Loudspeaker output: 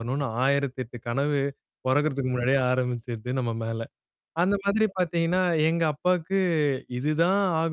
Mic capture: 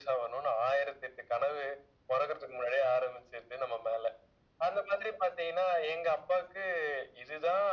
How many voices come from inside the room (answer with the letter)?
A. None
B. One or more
A